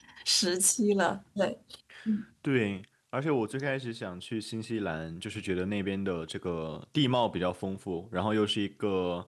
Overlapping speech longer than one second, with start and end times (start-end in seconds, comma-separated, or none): none